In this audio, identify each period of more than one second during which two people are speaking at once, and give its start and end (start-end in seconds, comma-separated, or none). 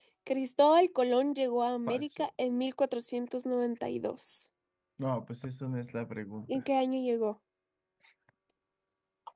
none